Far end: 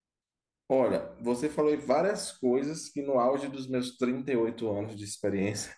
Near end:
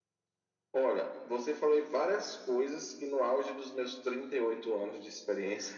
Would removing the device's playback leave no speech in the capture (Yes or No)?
Yes